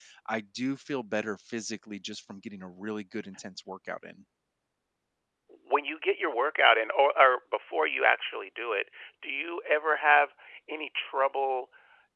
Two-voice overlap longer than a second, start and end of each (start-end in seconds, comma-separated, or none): none